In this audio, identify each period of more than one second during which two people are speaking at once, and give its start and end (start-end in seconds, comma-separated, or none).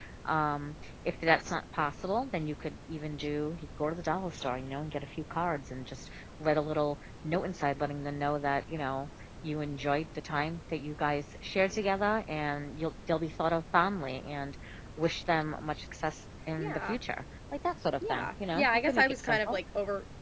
18.1-19.6